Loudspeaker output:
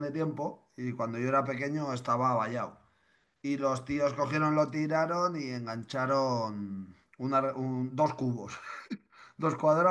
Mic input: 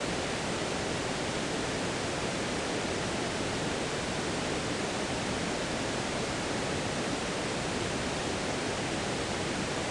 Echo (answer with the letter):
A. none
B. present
A